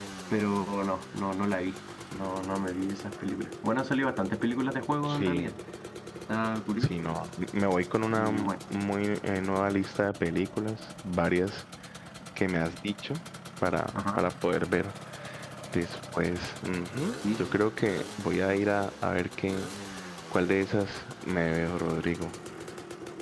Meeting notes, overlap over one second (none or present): none